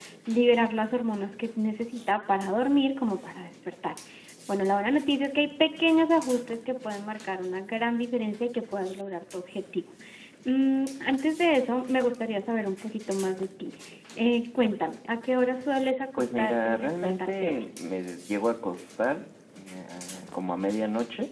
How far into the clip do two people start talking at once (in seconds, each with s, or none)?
16.2 s